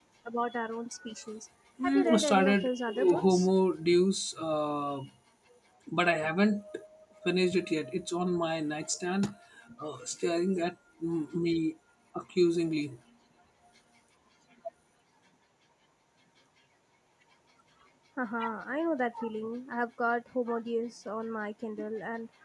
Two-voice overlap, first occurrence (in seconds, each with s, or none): 1.8 s